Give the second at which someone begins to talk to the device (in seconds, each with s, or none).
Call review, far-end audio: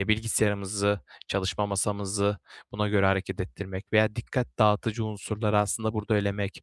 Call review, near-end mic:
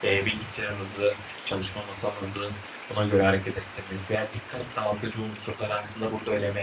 none